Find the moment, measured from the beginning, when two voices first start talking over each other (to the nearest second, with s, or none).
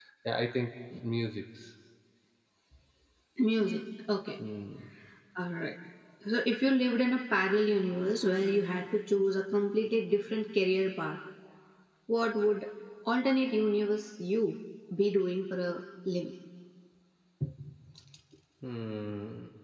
none